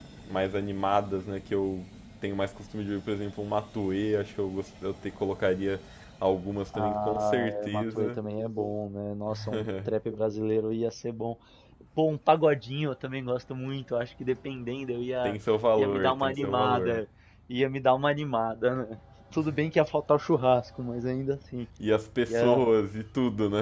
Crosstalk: present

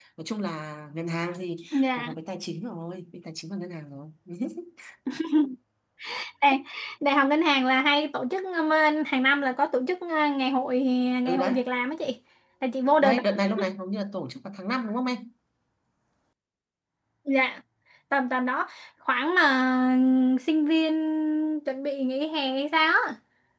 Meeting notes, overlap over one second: none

